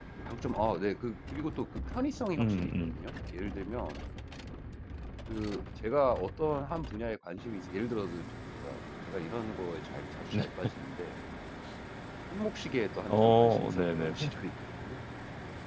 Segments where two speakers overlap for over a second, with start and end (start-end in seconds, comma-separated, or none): 13.1-14.3